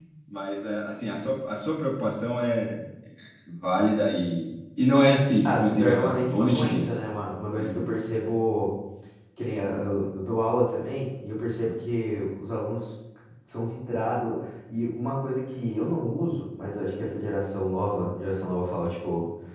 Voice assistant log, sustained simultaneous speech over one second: present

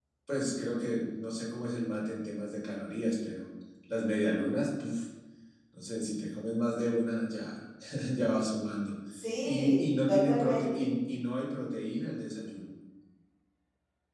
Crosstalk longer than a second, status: present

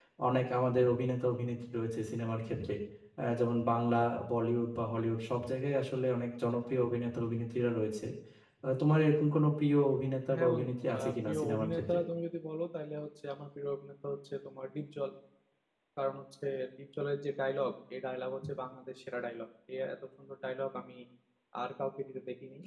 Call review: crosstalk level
present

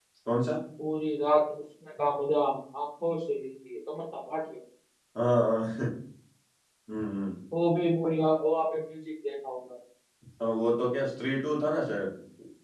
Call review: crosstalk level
none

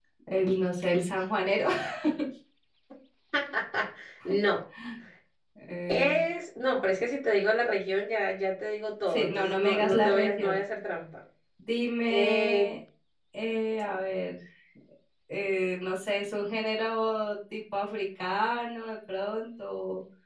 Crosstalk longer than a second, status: present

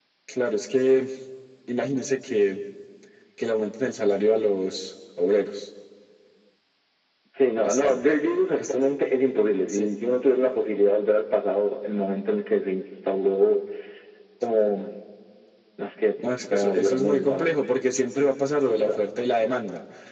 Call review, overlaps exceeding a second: present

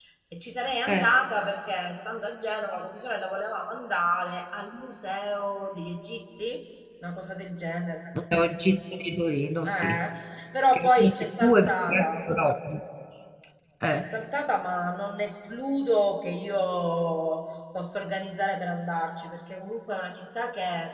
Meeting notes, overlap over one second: present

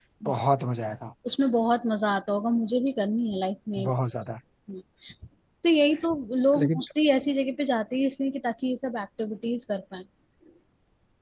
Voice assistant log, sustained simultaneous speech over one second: none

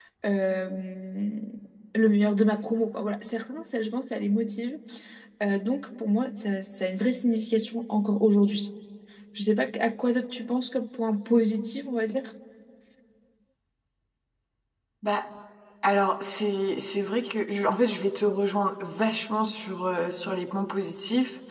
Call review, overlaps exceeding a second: none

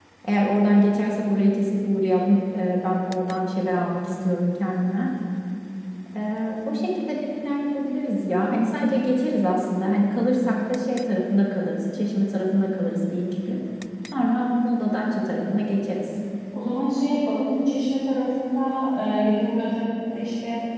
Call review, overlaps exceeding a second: none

